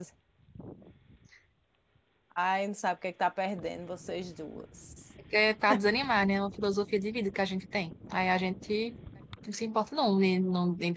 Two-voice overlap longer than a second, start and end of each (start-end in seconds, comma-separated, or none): none